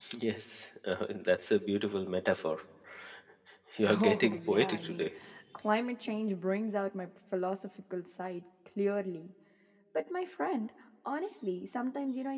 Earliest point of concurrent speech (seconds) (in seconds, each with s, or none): 3.9 s